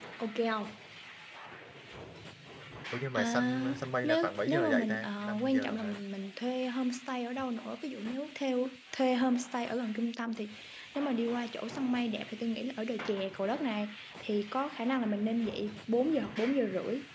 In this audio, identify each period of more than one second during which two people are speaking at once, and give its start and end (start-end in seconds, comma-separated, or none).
3.2-6.0